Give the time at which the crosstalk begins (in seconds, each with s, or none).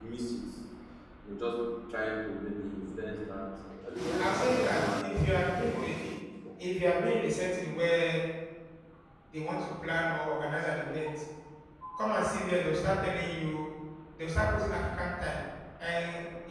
4.2 s